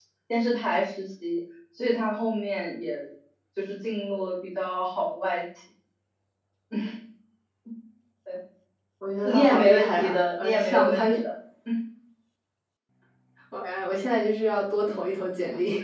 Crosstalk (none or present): present